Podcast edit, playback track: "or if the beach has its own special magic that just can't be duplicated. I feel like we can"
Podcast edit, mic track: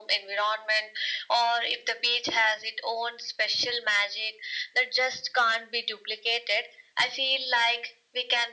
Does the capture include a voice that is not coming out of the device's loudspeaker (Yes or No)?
No